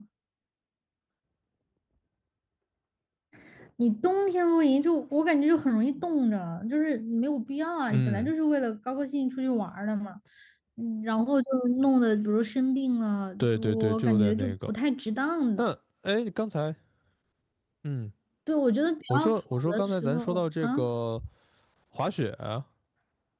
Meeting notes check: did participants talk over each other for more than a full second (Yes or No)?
Yes